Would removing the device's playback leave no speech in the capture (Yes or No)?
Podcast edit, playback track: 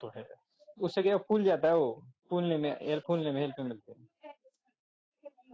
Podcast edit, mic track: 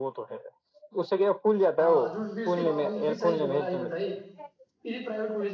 No